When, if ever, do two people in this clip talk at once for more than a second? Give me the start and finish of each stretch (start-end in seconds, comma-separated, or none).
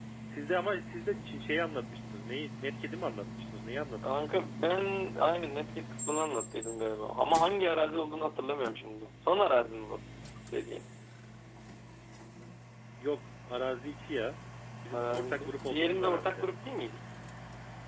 14.9-16.5